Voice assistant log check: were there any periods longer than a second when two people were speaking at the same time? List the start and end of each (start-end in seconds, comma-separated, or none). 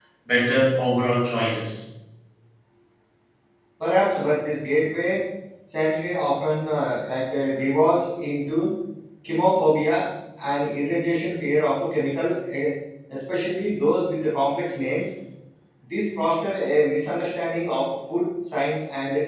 none